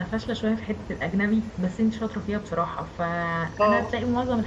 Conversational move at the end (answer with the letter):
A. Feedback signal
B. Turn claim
A